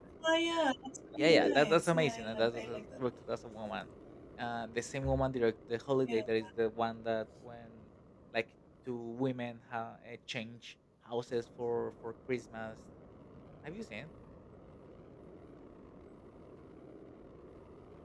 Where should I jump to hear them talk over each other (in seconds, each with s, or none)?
1.2 s